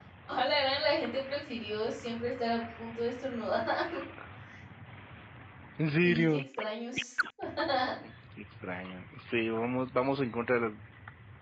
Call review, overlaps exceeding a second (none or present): none